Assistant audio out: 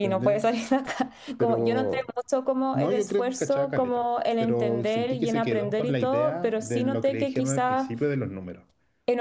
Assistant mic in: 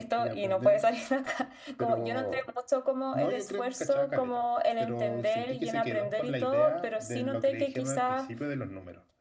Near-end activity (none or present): none